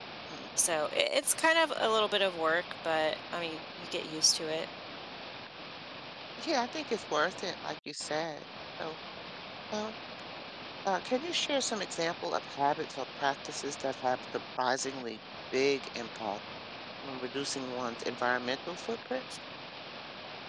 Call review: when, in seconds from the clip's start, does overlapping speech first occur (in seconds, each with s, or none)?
none